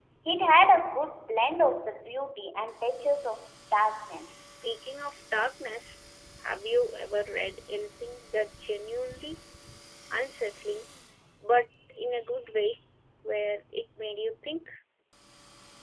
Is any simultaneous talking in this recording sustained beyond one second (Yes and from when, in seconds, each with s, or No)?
No